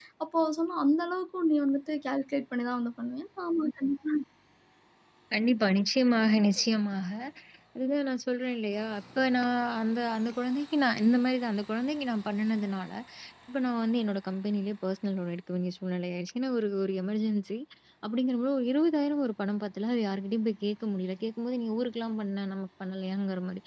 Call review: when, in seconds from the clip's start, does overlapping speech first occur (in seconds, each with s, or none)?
none